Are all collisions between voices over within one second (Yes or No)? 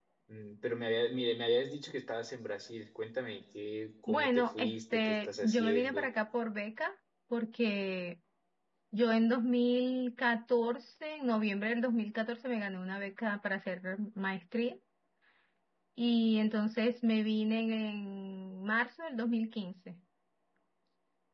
No